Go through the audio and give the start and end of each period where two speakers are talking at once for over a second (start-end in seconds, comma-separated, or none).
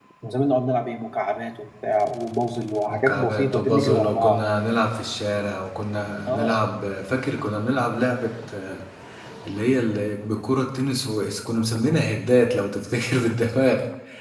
2.9-4.4